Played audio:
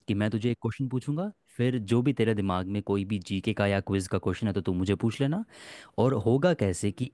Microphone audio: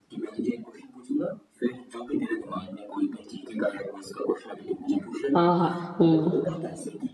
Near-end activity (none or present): present